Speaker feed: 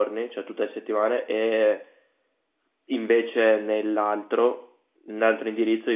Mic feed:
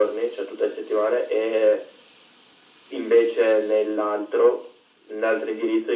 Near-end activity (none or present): none